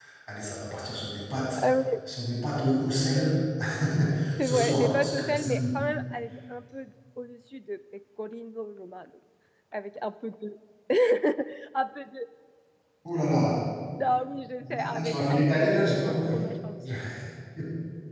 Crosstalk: present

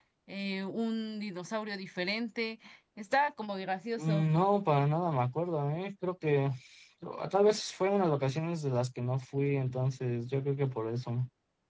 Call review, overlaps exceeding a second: none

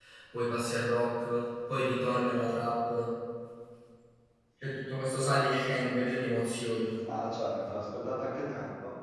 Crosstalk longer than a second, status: none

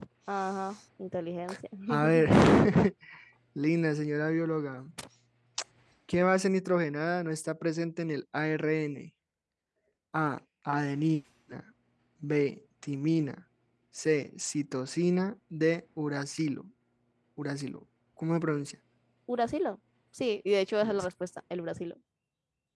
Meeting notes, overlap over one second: none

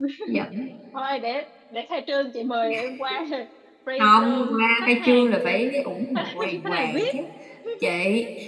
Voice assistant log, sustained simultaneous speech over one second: present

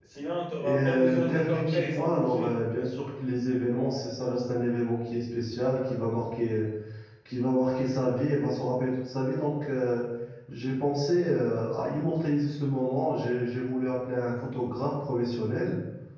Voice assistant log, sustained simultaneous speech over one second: present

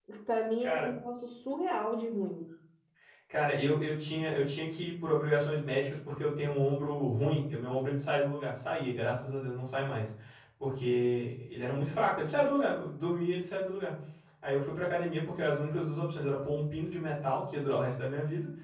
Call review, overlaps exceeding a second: none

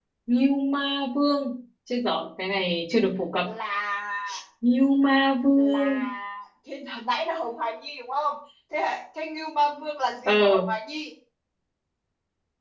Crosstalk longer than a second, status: none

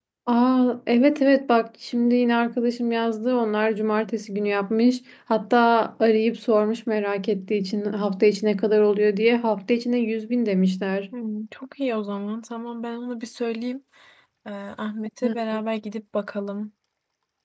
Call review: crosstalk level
none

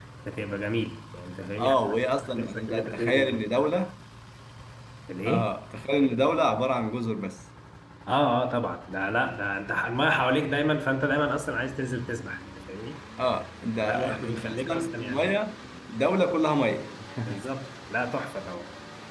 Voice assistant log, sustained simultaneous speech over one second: present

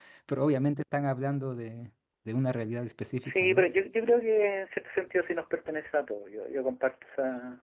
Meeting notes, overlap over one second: none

